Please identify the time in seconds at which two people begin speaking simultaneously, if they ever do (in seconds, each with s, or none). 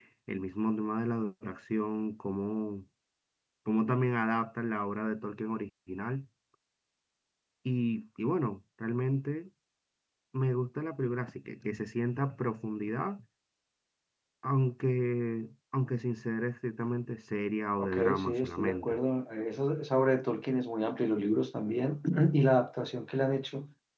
17.8 s